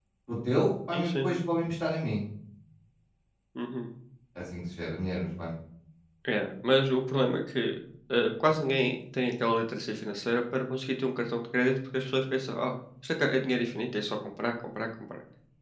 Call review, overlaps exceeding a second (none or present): none